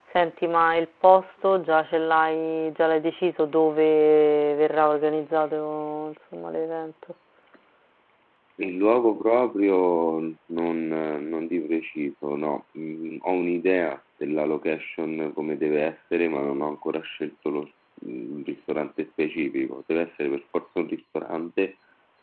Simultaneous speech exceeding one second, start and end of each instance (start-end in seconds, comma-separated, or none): none